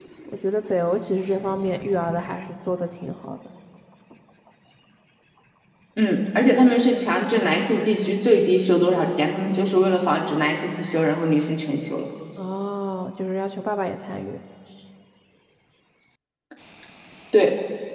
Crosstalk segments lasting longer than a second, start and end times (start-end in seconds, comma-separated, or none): none